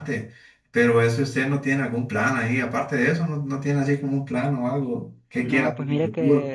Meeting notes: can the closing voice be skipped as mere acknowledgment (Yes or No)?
No